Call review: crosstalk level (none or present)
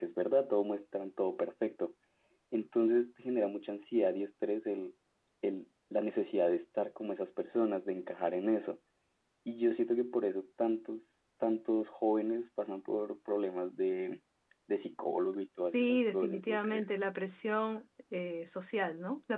present